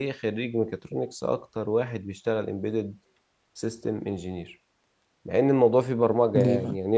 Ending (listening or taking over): listening